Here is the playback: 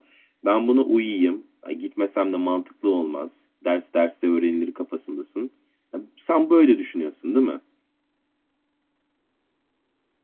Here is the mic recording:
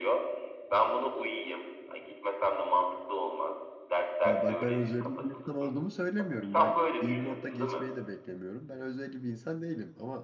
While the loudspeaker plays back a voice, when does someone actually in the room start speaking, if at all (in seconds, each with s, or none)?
4.2 s